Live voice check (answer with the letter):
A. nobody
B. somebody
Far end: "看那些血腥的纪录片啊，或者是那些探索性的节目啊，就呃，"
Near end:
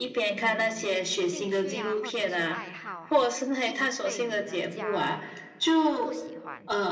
B